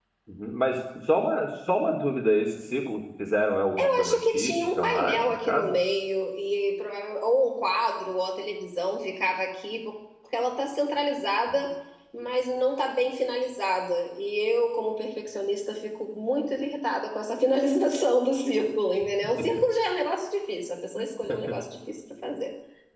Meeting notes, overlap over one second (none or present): present